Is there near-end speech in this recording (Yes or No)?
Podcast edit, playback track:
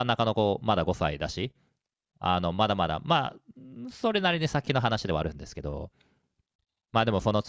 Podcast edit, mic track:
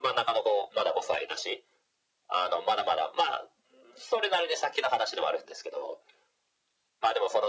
No